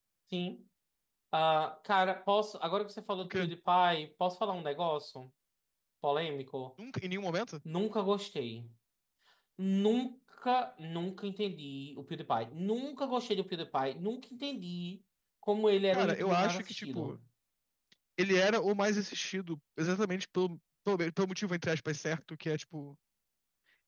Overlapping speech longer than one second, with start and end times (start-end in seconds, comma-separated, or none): 15.9-17.2